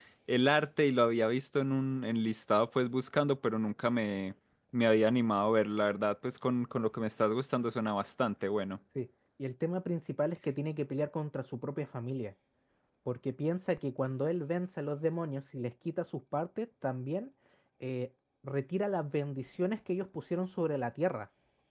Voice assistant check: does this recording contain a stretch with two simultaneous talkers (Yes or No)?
No